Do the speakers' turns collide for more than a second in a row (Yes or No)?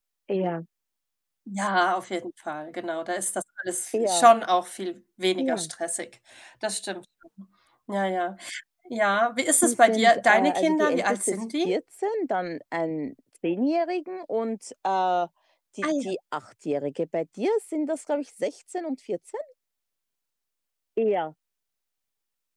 Yes